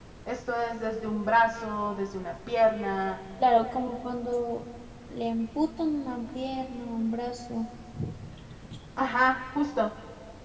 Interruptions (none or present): none